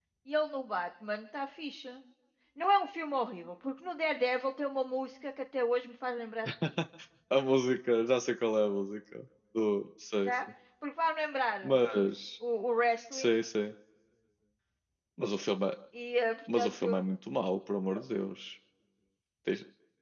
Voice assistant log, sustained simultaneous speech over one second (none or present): none